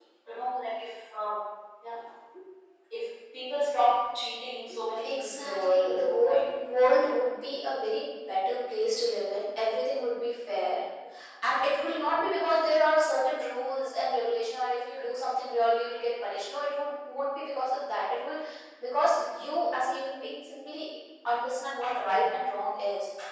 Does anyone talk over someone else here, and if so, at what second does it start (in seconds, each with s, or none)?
5.0 s